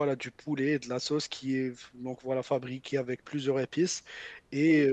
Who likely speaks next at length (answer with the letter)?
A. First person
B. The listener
A